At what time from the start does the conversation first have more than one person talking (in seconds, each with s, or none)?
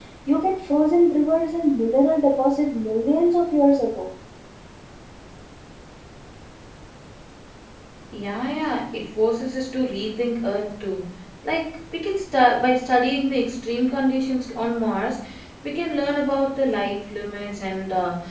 none